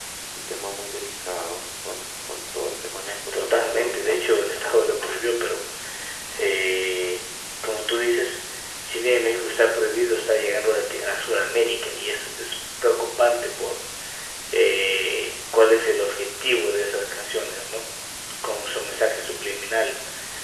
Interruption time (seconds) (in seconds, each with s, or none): 3.3 s